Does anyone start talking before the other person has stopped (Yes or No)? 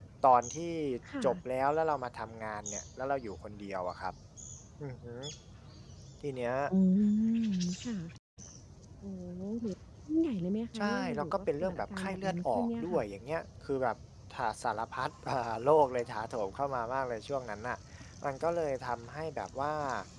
Yes